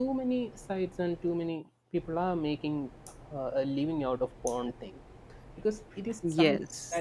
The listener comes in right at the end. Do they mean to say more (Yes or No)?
No